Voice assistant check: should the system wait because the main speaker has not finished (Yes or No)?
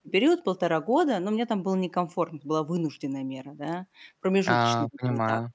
Yes